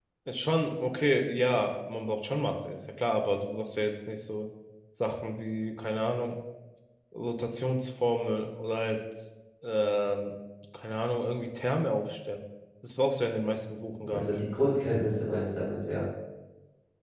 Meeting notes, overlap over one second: none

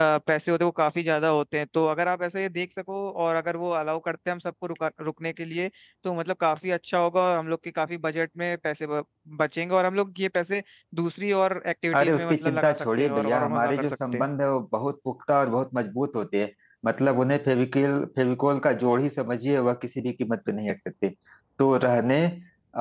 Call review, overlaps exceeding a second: present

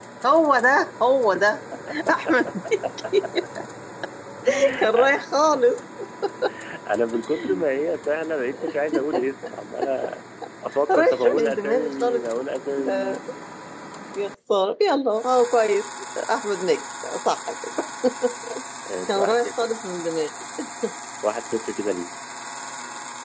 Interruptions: present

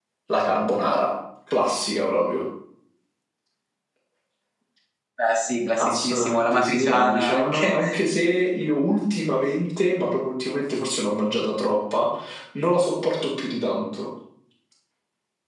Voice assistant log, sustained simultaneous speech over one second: present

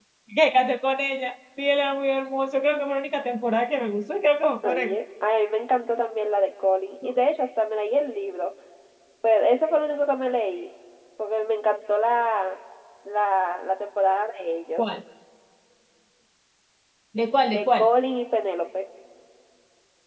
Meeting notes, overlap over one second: none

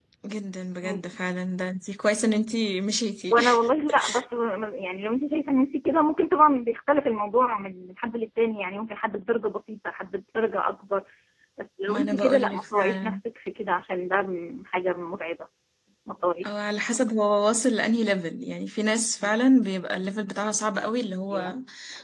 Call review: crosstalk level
present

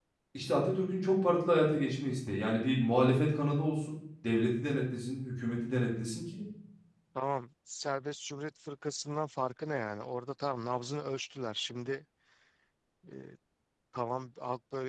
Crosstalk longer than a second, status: none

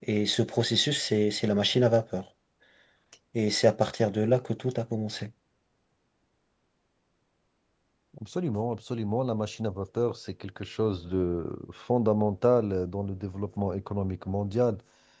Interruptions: none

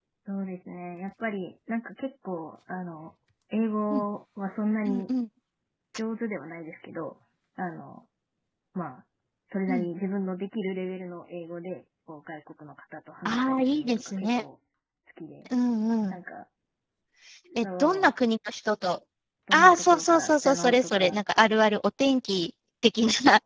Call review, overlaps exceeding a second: present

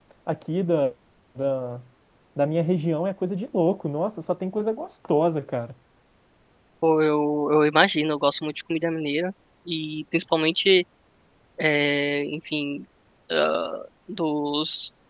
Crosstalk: none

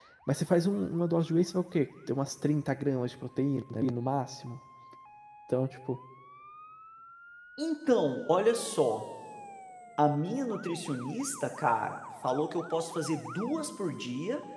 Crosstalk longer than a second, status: none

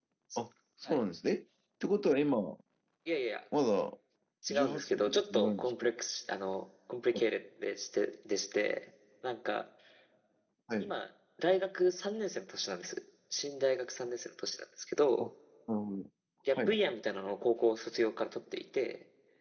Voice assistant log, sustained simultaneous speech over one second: present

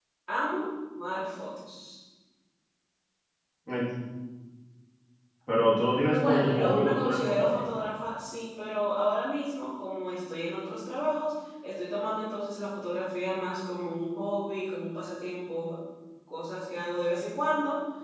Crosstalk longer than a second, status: present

